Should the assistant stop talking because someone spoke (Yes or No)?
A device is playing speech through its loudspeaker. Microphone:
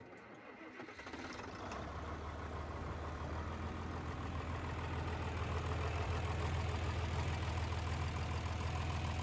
No